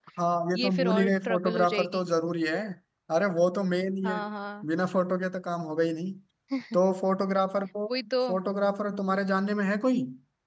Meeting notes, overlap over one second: present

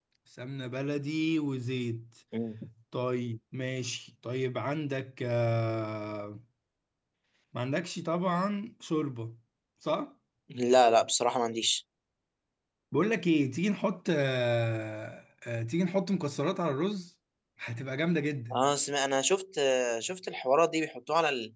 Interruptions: none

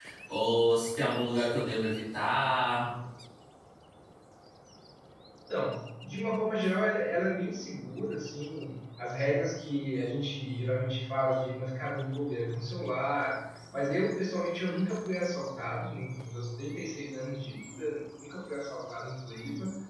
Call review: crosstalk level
none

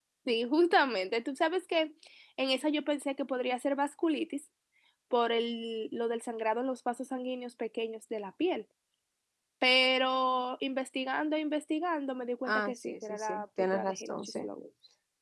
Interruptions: present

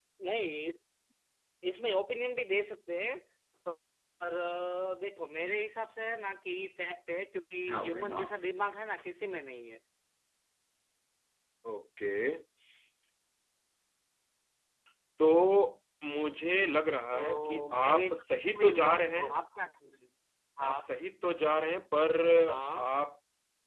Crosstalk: present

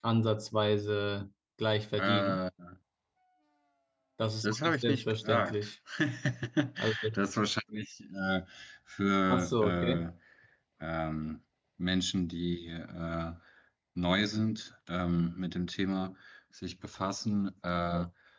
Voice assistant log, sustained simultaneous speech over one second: present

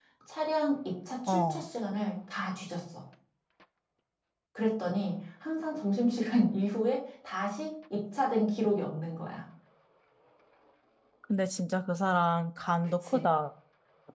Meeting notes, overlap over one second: none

